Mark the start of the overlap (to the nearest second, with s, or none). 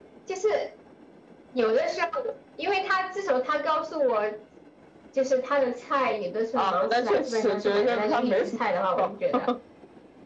7 s